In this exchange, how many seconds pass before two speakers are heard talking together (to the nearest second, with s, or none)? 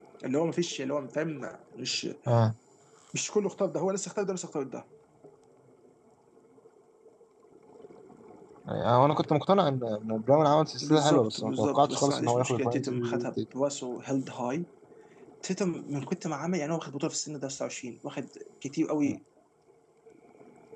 11 s